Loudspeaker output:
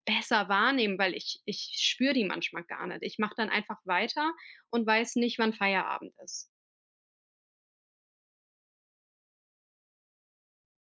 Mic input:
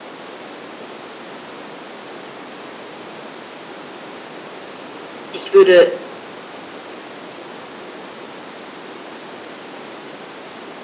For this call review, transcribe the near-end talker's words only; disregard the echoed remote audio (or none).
Ich würde